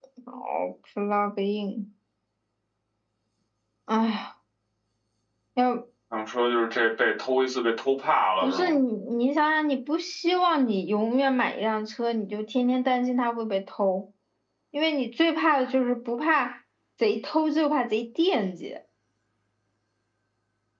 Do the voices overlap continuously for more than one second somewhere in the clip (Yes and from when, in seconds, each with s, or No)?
No